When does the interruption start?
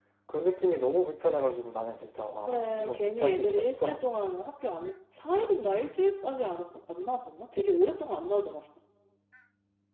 2.5 s

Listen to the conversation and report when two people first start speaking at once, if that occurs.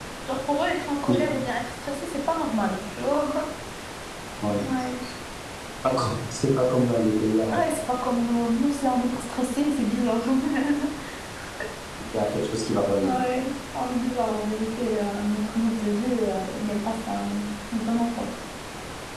none

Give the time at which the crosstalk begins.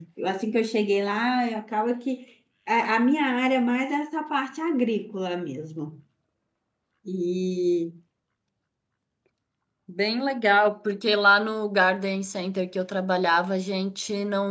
none

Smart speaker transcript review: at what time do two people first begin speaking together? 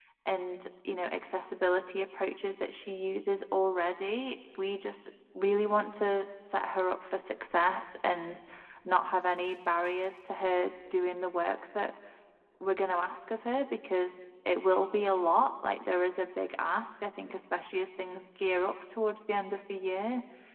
none

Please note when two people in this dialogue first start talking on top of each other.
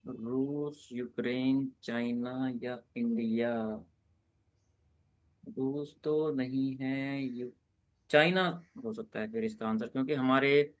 none

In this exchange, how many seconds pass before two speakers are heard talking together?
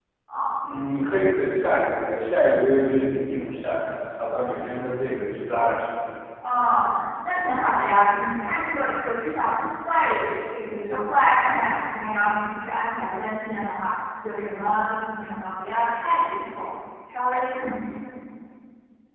none

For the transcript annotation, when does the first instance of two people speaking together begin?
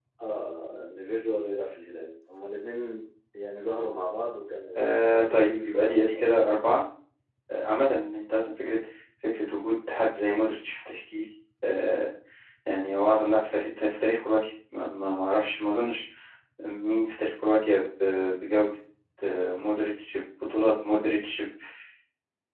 4.8 s

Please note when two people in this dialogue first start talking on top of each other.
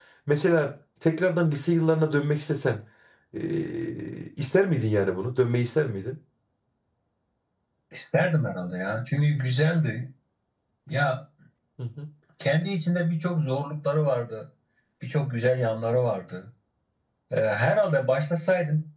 none

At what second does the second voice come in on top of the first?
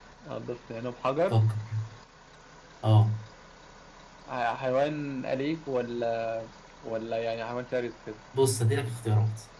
none

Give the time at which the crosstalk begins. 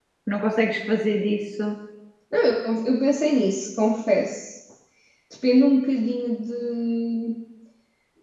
none

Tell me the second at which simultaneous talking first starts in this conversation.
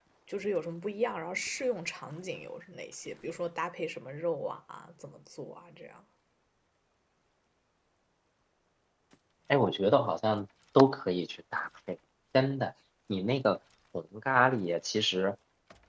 none

